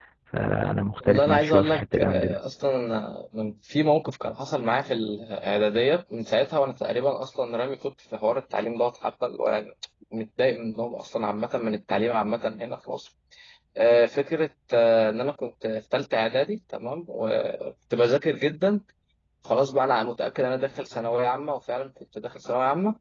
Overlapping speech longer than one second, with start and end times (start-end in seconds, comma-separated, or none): 1.0-2.4